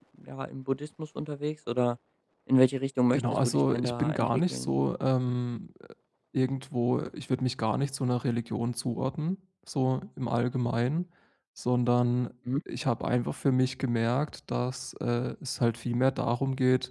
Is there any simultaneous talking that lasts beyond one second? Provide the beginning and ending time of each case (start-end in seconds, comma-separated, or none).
3.1-4.7